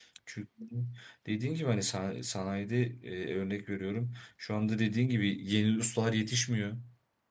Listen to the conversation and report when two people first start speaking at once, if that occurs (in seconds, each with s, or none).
none